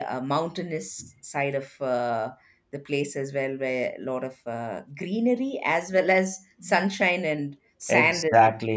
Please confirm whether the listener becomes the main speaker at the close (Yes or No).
Yes